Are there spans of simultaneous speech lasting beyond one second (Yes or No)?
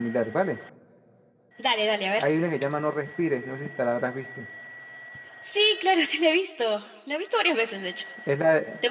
No